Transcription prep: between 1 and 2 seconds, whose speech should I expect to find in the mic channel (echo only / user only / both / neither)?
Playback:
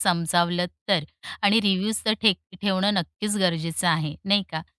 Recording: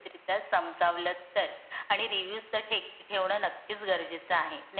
echo only